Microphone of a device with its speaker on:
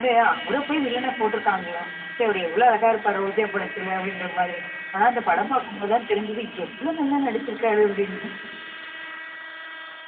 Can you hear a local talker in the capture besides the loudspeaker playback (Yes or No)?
No